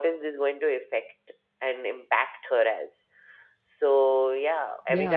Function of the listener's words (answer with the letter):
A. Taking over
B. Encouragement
A